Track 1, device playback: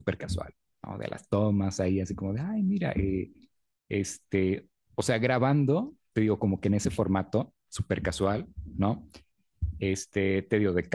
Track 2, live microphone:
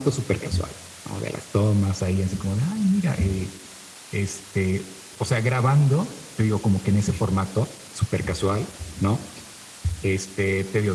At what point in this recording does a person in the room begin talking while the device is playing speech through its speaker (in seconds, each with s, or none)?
none